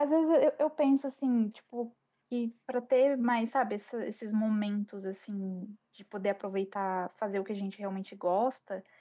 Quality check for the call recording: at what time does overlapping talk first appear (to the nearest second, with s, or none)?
none